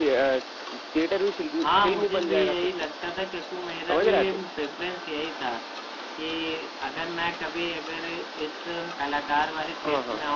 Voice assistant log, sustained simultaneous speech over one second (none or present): present